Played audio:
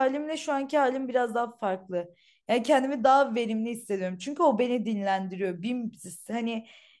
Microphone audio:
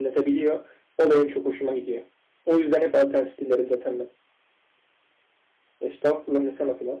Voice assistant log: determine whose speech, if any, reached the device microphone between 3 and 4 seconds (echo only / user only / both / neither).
user only